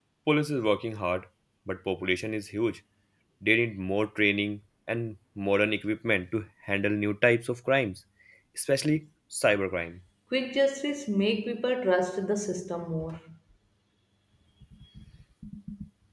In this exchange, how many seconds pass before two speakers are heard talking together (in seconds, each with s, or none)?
none